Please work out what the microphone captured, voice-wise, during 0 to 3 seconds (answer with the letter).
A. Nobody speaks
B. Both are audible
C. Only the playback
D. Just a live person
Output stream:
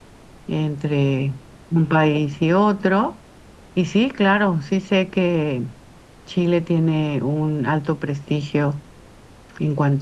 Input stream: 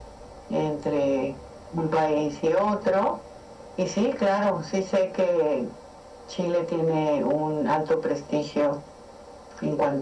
C